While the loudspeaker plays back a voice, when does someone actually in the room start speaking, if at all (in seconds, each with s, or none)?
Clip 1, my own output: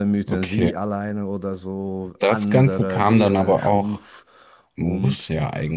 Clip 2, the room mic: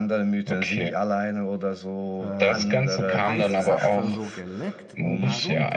2.2 s